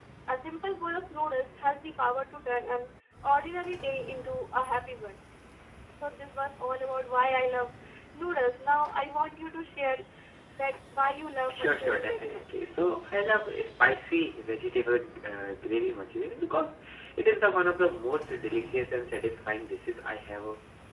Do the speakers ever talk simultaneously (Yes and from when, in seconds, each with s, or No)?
Yes, from 11.5 s